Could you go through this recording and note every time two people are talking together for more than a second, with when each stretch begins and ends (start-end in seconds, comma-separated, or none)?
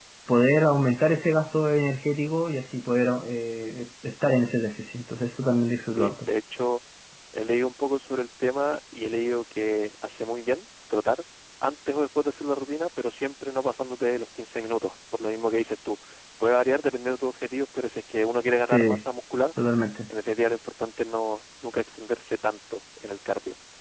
none